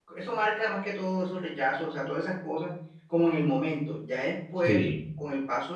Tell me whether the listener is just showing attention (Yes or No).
Yes